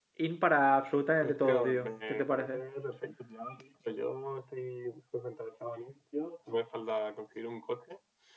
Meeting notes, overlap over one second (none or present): present